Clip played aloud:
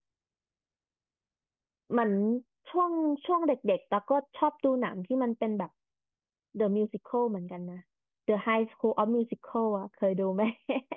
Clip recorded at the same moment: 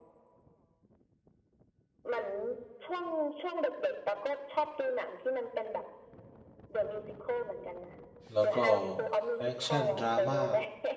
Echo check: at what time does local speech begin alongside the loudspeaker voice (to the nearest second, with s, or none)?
8 s